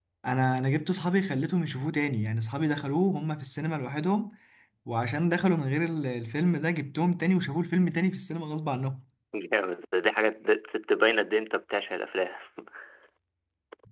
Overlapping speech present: No

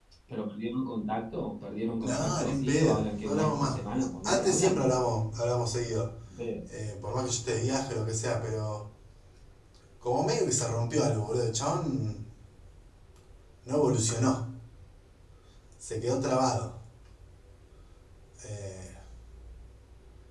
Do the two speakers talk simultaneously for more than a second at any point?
Yes, from 2.0 s

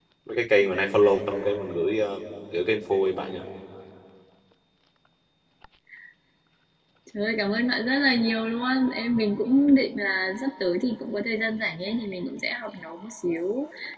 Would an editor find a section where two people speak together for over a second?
No

